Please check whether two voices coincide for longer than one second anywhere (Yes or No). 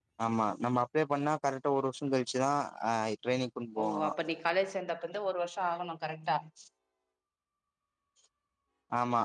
No